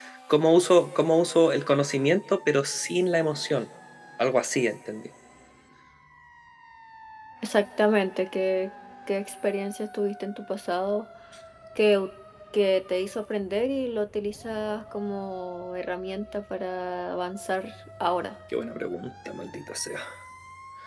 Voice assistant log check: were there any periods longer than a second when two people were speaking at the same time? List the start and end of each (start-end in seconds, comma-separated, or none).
none